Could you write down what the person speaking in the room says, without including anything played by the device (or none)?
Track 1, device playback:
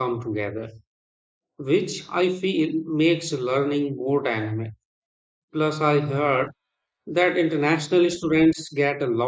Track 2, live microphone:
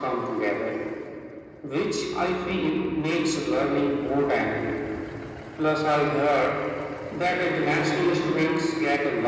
none